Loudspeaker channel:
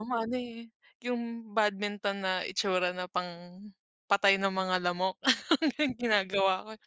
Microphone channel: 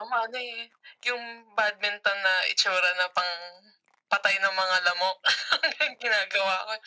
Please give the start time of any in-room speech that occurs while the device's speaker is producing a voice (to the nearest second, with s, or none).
none